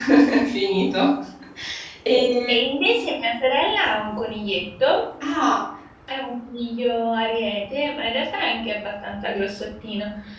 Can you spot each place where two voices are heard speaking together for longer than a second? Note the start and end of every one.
none

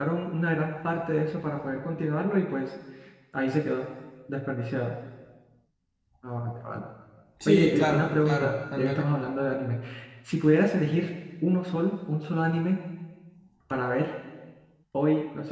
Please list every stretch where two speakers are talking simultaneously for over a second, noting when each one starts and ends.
7.4-9.0

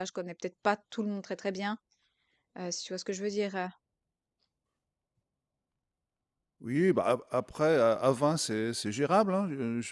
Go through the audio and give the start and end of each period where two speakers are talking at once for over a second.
none

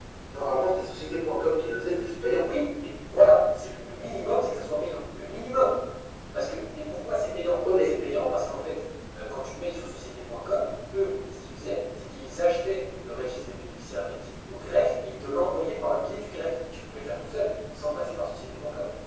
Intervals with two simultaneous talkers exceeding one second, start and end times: none

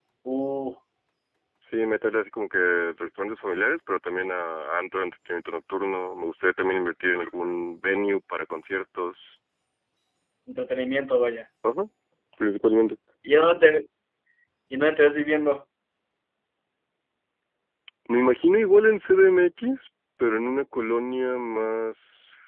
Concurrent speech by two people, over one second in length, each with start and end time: none

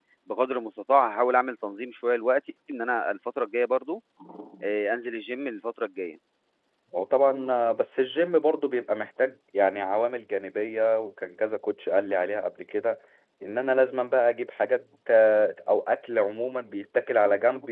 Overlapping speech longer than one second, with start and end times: none

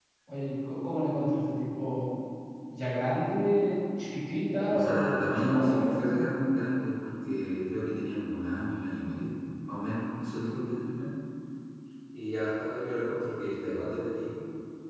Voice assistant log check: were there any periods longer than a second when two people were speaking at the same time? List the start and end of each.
4.7-6.2

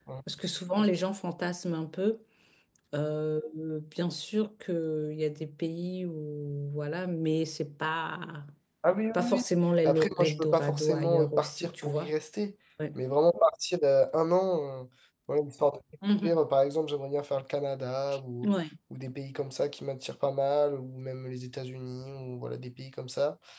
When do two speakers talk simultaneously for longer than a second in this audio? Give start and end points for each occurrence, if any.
9.8-12.1

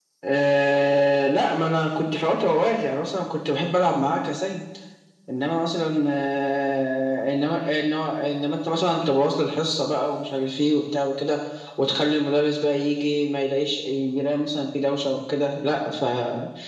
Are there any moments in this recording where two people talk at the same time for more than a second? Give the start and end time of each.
none

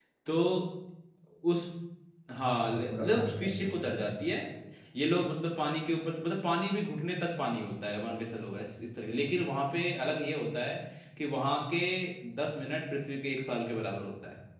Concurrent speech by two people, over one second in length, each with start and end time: 2.6-4.0

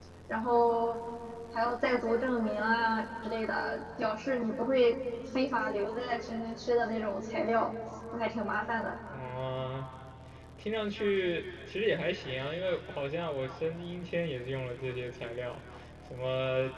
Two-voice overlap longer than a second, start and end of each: none

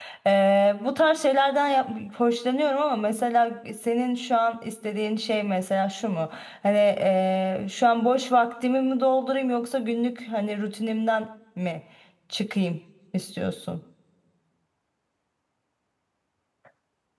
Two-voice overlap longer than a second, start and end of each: none

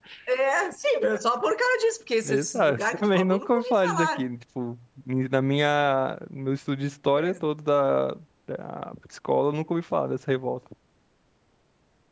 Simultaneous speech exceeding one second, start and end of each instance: 2.2-4.2

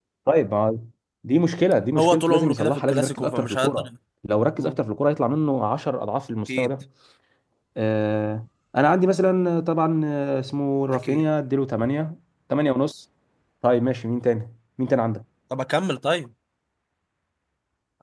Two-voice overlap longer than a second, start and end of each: 2.0-3.9

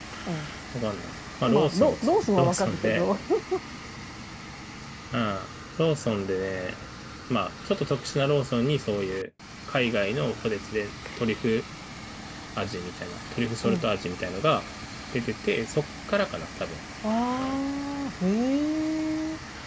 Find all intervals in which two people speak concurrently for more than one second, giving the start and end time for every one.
1.5-3.1

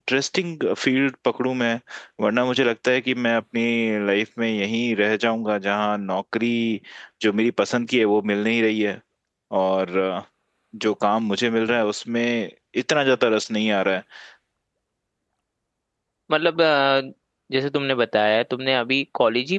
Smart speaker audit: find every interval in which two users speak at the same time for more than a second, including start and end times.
none

